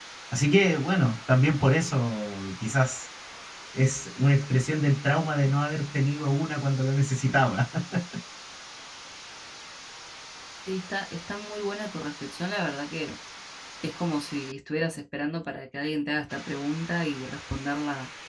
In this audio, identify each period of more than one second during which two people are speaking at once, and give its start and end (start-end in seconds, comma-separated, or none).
none